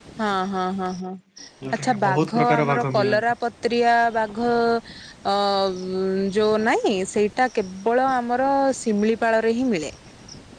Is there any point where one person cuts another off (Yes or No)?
Yes